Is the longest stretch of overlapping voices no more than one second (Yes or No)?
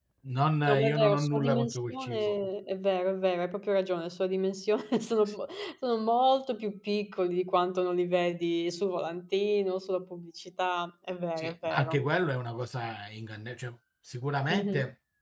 No